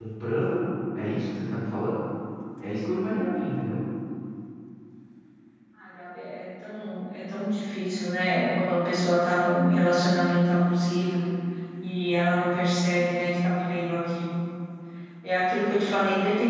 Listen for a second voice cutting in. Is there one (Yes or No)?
No